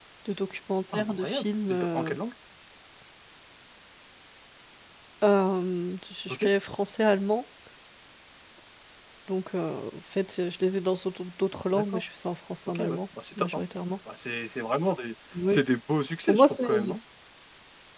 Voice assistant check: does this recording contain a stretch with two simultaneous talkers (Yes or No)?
Yes